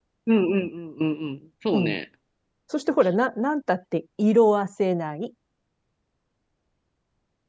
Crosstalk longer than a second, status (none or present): none